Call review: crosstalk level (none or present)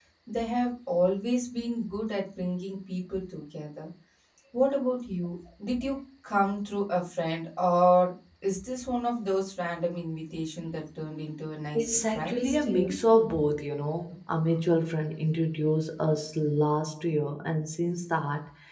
present